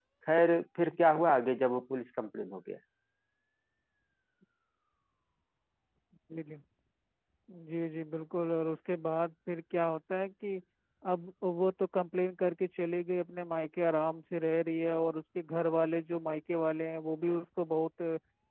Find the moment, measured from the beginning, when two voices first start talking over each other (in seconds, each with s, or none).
none